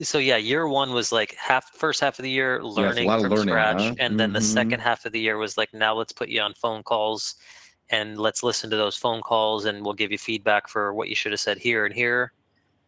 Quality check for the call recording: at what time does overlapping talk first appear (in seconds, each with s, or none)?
2.8 s